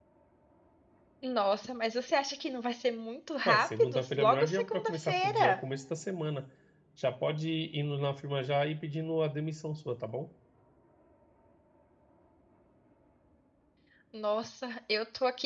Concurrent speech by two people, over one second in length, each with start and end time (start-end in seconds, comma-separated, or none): 3.4-5.6